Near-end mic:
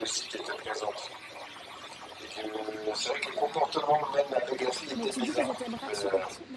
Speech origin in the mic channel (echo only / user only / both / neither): both